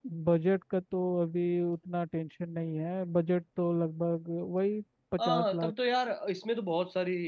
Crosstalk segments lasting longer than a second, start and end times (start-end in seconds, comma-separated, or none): none